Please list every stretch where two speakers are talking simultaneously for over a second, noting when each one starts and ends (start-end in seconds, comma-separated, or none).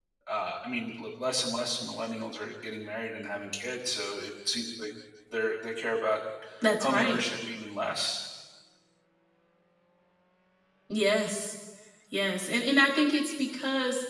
none